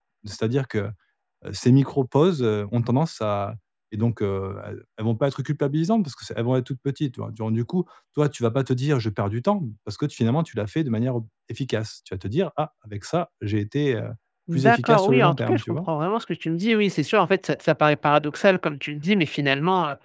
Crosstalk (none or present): present